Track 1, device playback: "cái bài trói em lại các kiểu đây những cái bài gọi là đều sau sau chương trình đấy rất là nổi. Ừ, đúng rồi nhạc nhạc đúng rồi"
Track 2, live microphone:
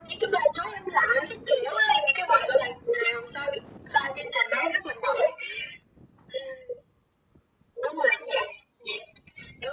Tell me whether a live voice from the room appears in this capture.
No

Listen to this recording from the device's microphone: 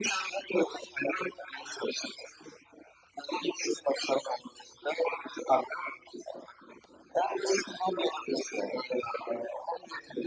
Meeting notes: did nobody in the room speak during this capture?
Yes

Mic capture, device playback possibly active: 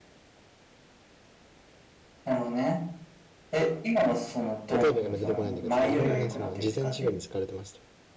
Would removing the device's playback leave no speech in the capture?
No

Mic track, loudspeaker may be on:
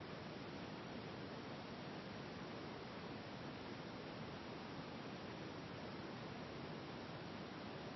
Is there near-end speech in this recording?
No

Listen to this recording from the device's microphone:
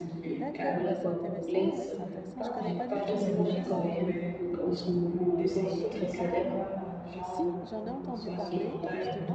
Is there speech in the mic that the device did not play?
Yes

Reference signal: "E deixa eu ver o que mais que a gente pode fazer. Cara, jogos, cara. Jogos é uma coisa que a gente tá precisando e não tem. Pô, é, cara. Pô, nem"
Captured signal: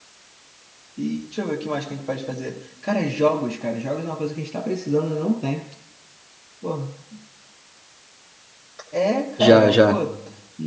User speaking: Yes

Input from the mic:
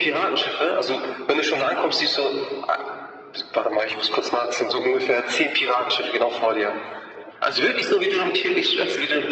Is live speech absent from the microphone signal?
Yes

